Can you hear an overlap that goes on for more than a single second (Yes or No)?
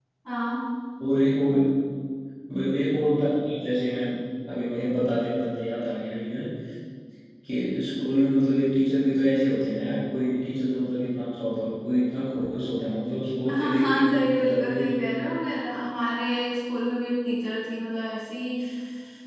Yes